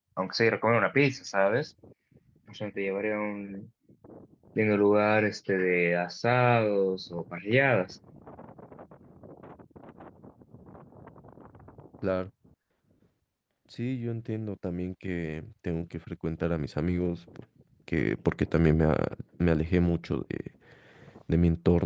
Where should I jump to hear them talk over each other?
none

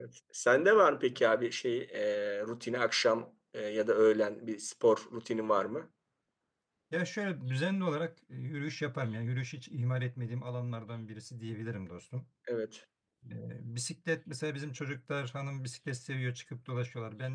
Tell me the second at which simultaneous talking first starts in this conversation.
none

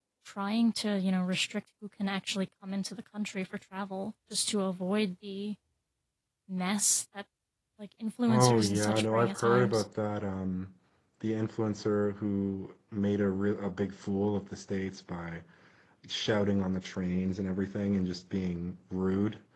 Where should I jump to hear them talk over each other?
8.3 s

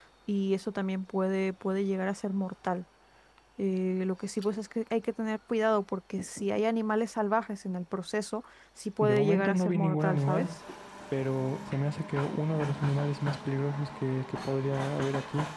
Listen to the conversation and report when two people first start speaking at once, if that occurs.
9.0 s

